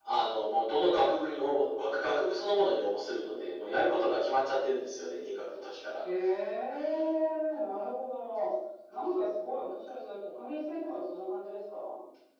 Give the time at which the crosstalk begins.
none

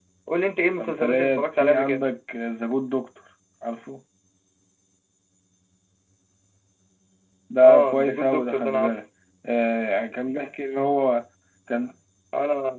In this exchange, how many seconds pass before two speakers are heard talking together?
0.8 s

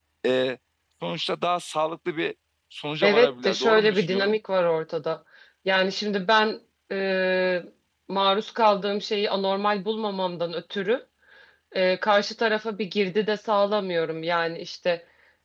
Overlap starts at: 3.0 s

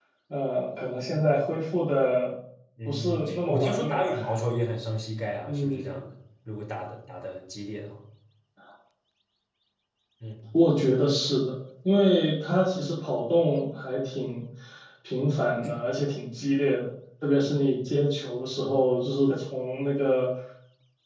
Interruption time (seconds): 2.8 s

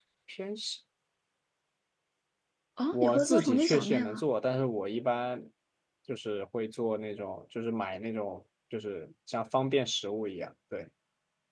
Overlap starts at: 2.9 s

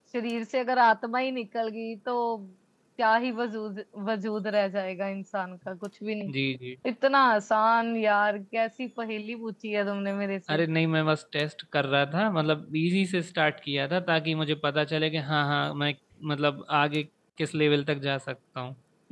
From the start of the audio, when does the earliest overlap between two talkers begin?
none

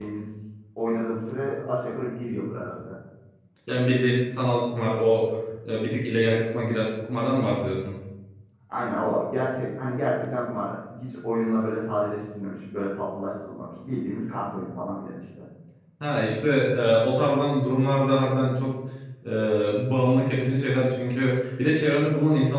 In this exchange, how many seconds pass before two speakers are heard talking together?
none

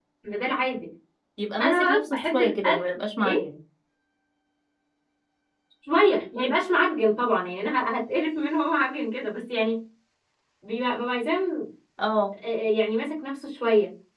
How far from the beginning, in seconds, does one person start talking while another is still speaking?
1.6 s

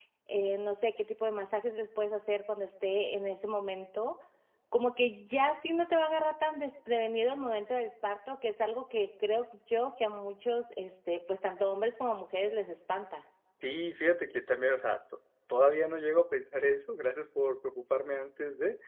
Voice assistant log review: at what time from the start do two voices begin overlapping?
none

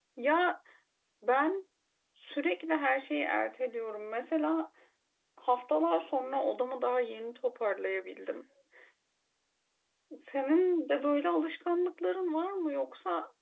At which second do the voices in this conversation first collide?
none

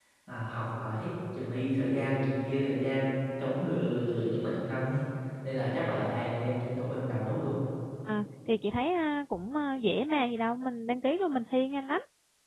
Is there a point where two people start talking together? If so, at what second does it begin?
none

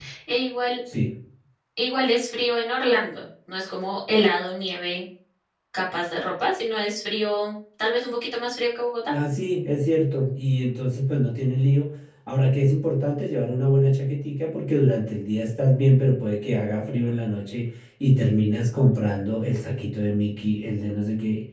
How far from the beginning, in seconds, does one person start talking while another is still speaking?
none

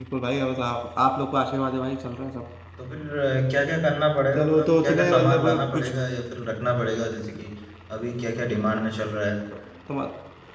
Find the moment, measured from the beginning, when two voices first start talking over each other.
4.3 s

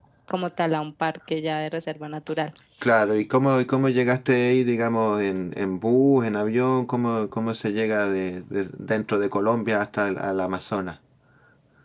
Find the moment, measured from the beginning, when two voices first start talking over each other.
none

